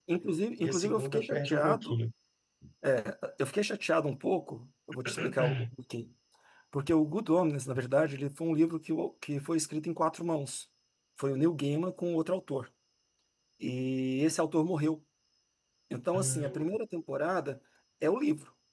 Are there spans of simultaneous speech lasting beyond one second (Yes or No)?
Yes